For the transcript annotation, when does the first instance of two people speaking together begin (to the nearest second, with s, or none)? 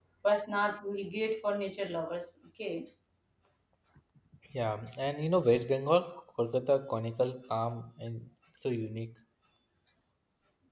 none